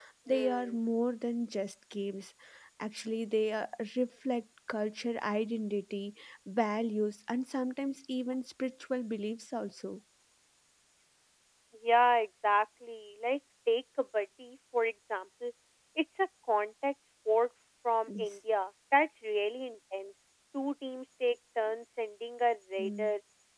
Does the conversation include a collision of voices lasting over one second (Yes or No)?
No